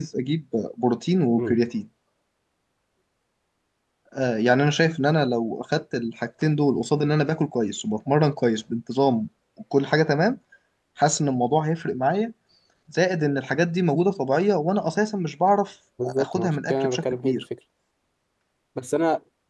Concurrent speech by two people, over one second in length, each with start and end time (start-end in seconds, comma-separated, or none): 16.0-17.4